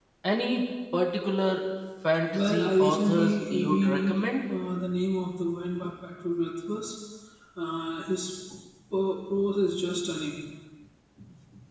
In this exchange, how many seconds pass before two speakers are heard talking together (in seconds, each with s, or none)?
2.3 s